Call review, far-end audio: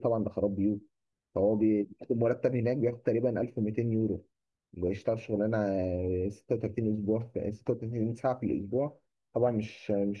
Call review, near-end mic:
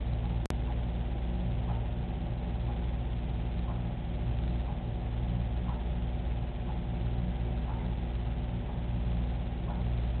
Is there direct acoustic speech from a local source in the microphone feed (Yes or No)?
No